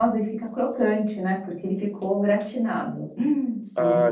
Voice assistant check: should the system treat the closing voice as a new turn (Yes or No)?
Yes